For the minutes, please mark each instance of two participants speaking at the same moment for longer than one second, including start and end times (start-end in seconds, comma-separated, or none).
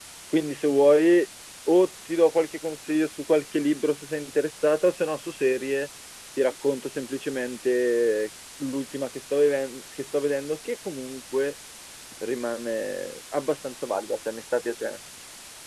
none